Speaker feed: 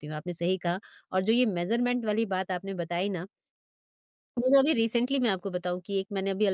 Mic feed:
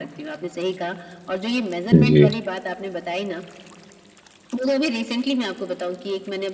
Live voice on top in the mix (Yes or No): Yes